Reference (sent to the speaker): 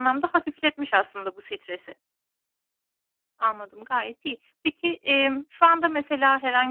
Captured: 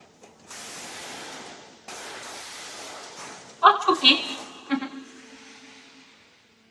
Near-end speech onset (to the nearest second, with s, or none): 4 s